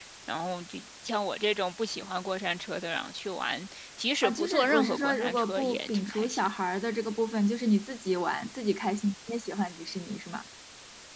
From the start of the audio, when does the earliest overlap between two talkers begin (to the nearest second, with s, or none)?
4 s